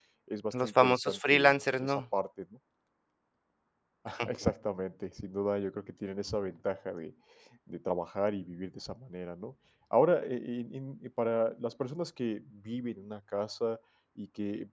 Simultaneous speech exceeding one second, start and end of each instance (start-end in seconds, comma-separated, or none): 0.5-2.0